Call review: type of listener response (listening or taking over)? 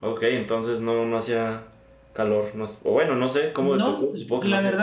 taking over